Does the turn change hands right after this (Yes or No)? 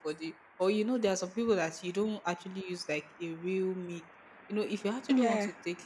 No